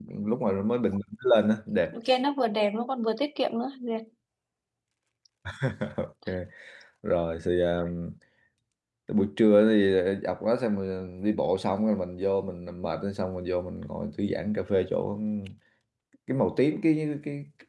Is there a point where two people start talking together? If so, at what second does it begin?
none

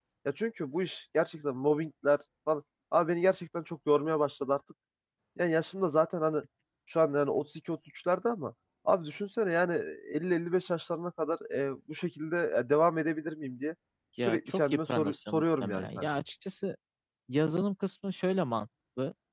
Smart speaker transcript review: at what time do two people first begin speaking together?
14.2 s

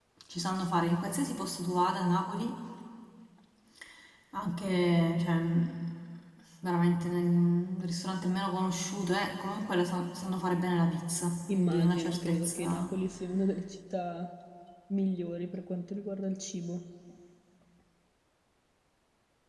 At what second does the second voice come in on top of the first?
11.5 s

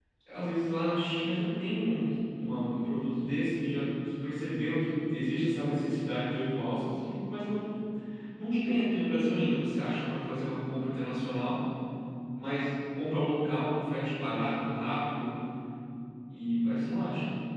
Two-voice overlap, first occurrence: none

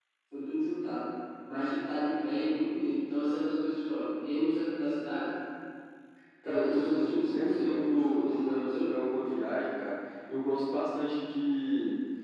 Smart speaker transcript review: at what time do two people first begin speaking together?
6.4 s

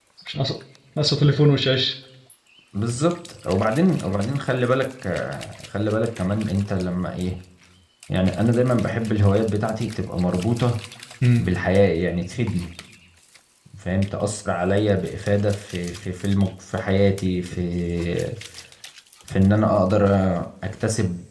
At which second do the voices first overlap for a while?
none

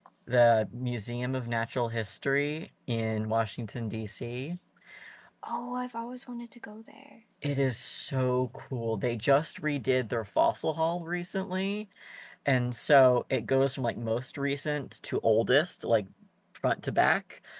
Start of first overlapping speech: none

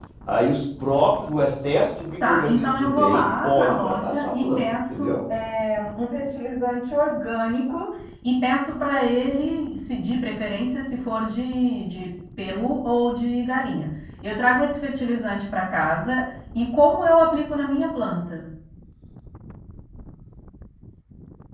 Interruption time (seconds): 2.2 s

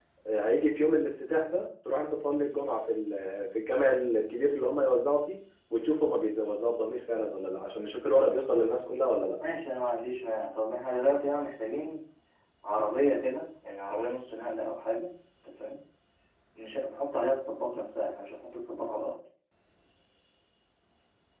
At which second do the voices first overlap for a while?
none

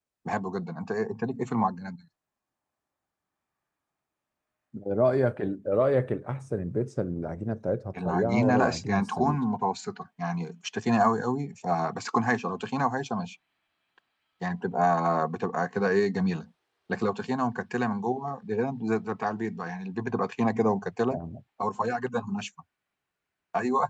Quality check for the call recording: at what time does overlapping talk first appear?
8.0 s

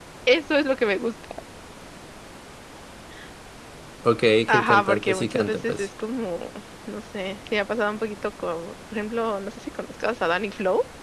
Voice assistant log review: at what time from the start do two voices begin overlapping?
4.5 s

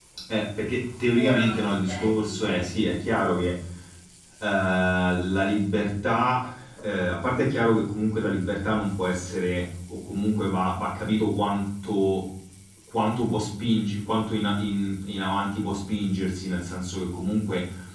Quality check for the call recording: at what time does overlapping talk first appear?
1.2 s

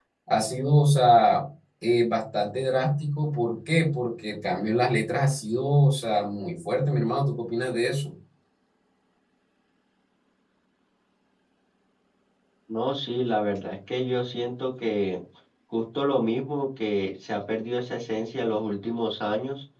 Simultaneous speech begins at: none

